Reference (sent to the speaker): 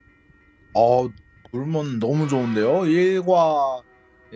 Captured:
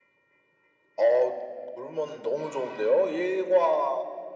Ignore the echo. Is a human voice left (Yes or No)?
No